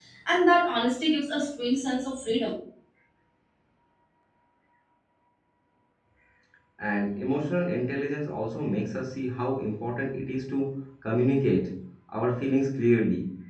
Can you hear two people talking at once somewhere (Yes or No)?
No